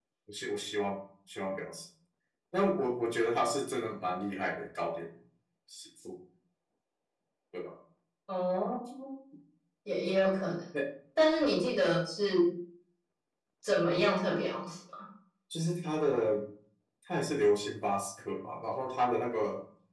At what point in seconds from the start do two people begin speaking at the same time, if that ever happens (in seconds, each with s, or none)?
none